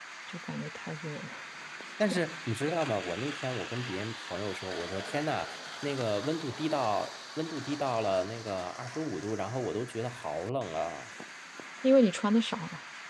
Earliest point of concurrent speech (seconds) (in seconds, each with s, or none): none